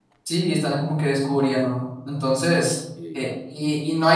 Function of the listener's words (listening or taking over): listening